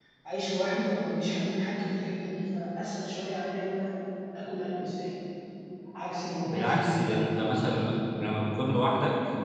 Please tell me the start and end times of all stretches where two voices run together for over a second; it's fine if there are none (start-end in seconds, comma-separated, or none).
6.4-7.8